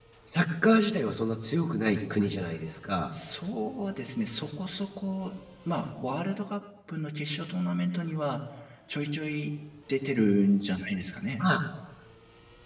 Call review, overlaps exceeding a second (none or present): none